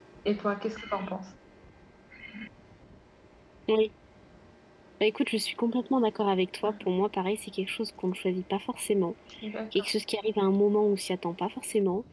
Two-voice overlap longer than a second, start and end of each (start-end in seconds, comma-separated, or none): none